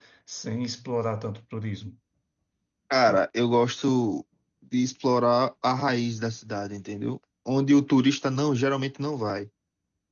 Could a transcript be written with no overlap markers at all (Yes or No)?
Yes